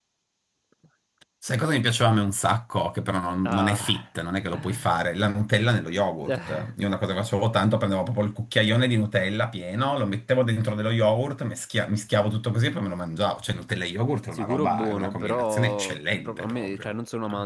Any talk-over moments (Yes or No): Yes